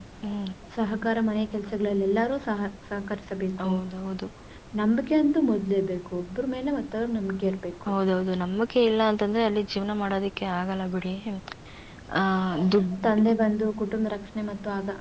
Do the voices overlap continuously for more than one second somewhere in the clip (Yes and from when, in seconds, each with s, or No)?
No